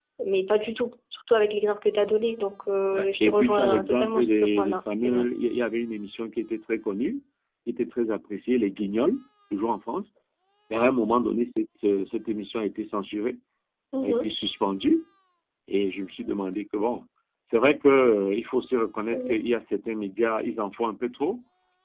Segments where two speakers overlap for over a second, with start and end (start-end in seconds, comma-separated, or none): 2.9-5.3